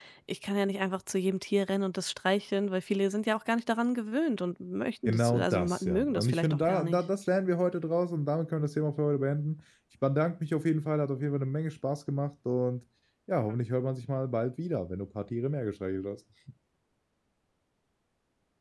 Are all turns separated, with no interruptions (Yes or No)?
No